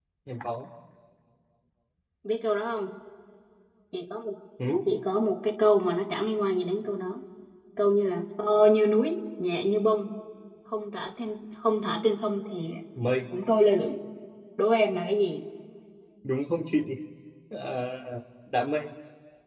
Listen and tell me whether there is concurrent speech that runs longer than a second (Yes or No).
No